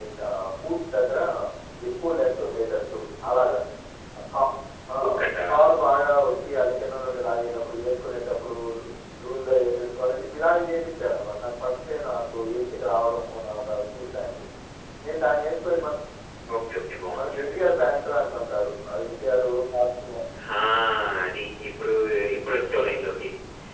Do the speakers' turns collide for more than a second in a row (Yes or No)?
No